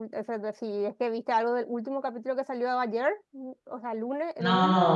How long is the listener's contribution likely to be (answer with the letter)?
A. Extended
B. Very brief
A